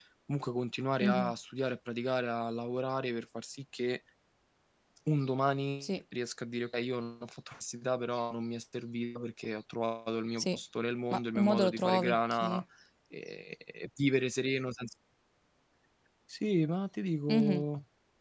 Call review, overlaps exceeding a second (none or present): present